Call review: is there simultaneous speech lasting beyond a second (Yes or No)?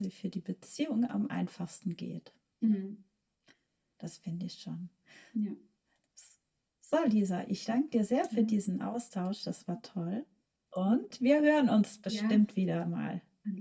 No